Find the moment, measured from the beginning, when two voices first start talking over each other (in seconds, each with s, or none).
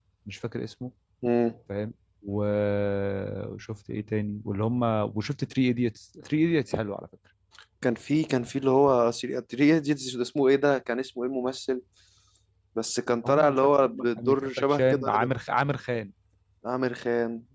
13.2 s